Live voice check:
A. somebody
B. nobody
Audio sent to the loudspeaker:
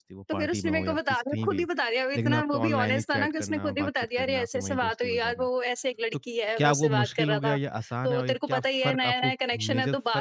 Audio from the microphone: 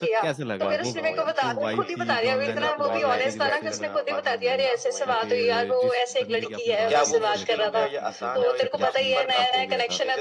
A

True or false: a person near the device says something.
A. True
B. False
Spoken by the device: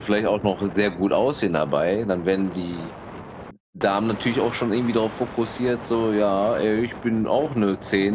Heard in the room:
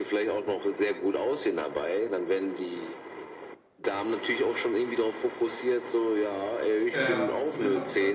A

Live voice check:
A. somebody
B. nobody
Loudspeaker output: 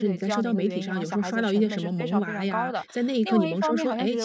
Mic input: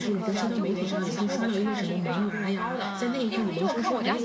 A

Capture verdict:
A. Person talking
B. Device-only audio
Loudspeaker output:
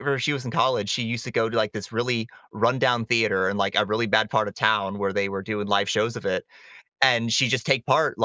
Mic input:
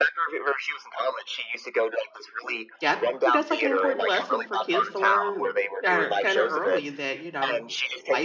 A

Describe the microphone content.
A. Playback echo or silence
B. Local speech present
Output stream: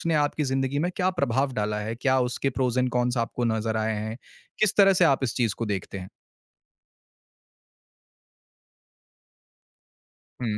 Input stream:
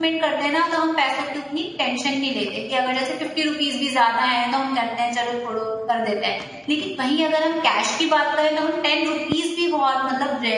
B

